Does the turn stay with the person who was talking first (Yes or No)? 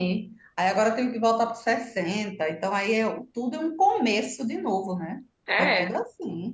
No